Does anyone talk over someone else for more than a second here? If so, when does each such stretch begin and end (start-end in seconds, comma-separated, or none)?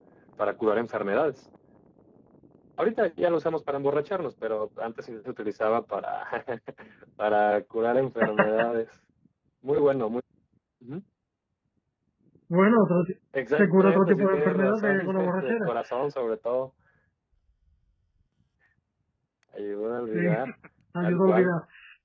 13.5-15.7